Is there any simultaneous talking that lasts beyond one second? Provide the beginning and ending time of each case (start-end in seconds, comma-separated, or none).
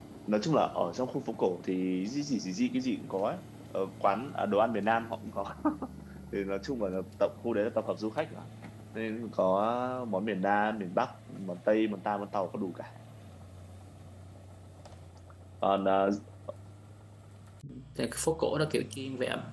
none